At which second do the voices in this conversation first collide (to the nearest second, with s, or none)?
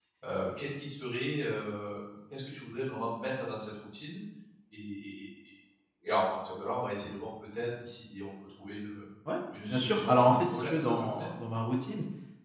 10 s